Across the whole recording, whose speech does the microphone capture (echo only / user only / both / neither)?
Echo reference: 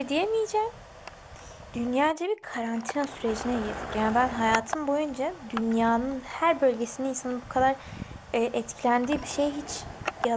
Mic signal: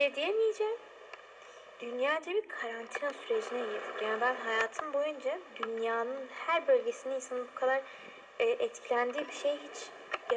echo only